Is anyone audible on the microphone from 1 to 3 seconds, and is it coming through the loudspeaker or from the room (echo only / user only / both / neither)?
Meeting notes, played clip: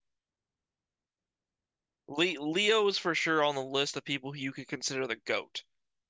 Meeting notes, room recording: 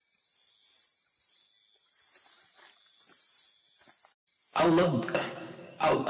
neither